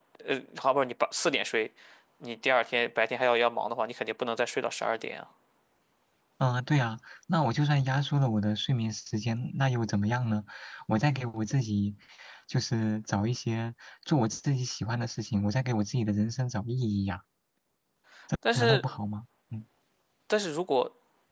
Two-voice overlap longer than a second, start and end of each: none

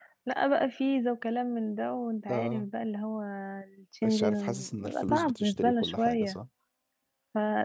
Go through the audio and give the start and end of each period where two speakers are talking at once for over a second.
4.0-6.2

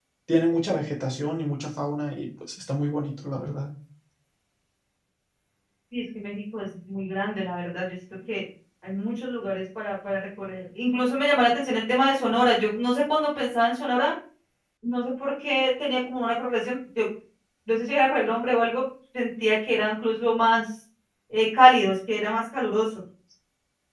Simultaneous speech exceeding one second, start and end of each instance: none

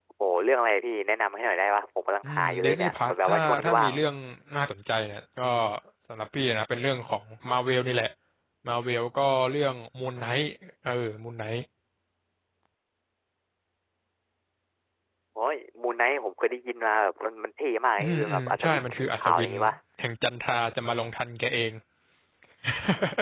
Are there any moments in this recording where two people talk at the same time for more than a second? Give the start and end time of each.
2.2-3.9, 18.0-19.5

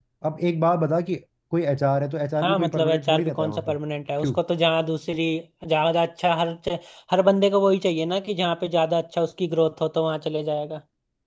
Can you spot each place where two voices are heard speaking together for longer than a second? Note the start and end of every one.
2.4-3.8

